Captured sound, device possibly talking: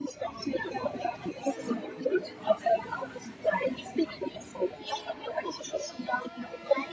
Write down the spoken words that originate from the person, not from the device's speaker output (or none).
none